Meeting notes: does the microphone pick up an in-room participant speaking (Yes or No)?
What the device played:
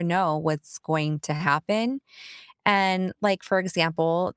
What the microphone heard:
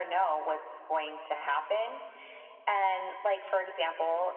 No